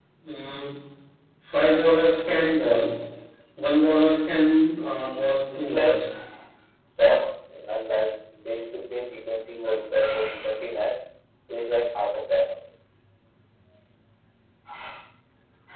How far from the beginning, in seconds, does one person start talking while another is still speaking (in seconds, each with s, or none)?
4.8 s